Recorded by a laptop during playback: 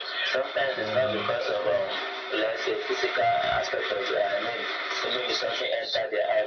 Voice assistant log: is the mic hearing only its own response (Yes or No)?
No